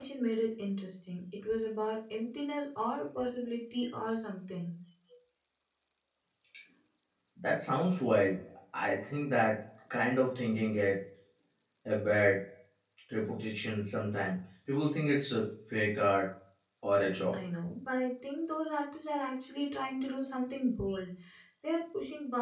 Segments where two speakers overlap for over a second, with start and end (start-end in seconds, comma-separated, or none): none